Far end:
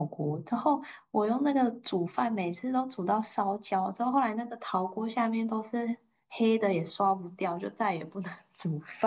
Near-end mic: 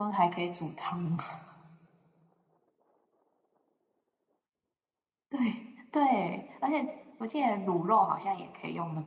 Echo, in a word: none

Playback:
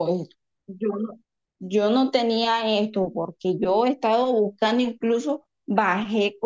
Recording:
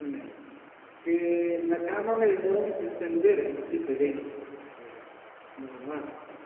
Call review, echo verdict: none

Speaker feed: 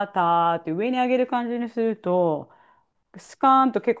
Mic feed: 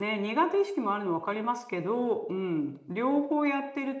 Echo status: none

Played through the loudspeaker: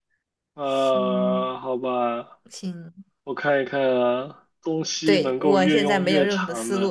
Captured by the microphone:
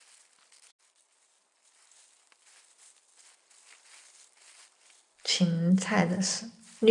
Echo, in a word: none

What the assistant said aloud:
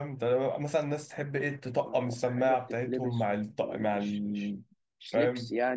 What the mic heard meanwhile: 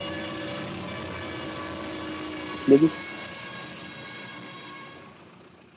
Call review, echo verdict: none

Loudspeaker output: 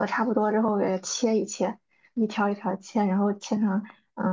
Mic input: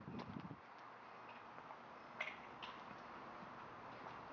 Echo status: none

